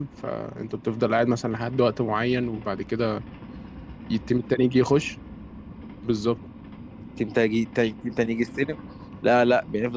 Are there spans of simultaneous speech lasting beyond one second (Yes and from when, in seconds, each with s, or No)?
No